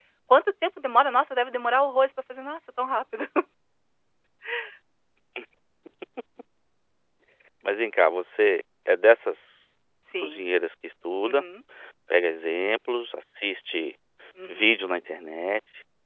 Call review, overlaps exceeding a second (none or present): none